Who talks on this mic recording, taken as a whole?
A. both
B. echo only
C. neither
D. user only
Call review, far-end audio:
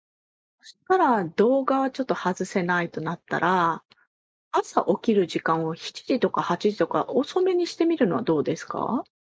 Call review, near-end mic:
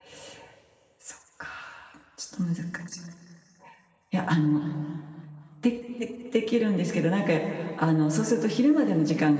D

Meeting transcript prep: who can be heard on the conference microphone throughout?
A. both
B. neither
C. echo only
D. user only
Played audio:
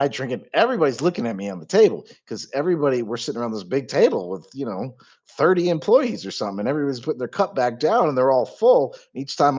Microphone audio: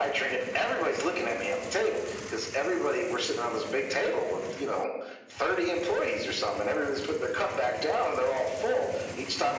C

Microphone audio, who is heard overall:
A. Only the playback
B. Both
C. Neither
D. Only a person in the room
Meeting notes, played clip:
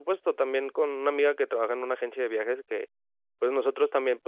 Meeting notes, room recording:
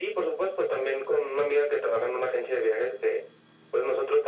A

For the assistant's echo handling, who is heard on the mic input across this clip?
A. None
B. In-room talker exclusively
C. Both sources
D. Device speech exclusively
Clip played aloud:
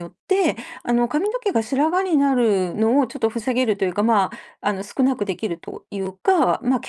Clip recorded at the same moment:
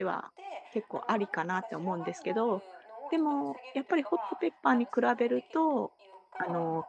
C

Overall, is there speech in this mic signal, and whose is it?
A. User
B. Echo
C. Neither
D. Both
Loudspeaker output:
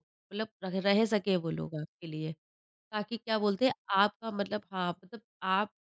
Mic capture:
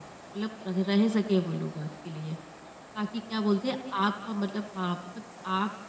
B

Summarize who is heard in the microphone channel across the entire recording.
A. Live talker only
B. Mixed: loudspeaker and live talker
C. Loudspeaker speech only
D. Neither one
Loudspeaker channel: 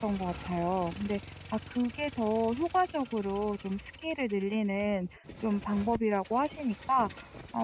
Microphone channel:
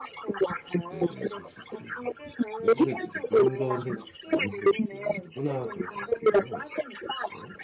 B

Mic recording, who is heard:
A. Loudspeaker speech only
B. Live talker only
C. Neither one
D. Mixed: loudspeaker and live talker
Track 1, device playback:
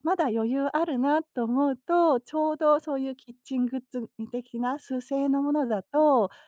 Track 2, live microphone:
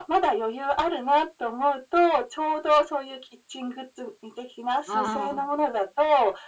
D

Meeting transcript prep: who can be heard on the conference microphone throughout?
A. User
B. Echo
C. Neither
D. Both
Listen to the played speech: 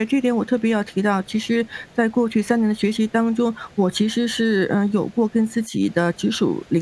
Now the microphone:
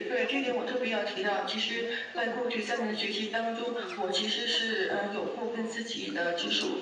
D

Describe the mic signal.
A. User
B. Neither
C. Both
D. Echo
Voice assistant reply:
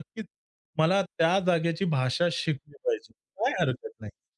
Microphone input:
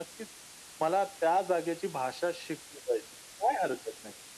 D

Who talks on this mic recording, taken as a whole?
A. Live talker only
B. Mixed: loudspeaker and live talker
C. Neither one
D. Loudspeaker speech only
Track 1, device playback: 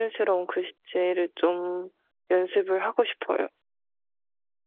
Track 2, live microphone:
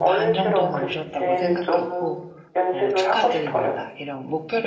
B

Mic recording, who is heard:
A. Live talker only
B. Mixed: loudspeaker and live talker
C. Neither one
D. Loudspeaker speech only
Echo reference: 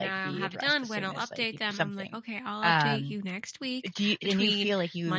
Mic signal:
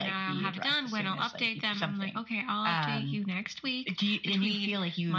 D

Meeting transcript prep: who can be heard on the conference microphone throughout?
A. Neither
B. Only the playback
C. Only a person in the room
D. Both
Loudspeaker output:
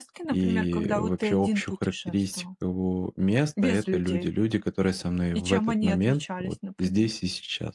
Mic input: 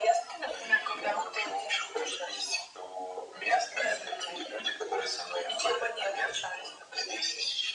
B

